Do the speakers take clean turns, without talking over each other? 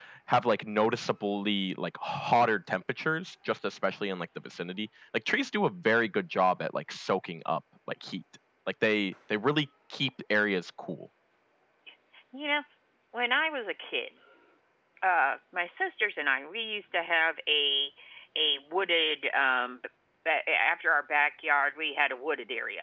Yes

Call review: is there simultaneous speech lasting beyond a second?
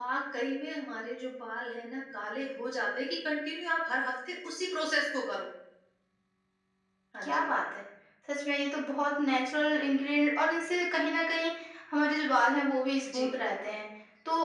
No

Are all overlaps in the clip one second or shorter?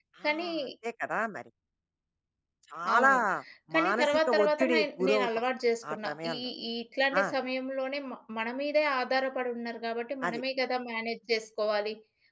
No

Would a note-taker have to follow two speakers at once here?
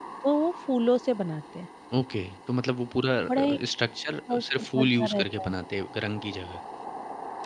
Yes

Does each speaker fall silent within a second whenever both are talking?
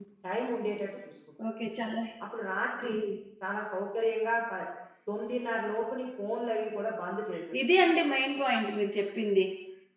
Yes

